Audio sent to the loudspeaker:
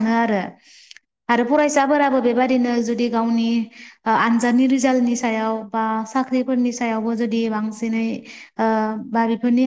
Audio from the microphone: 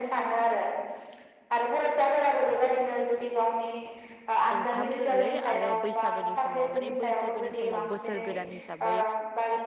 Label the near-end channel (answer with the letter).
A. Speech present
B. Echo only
A